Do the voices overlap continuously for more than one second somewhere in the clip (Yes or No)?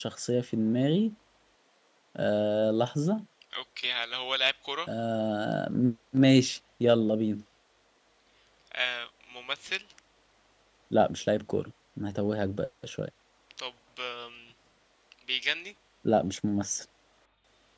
No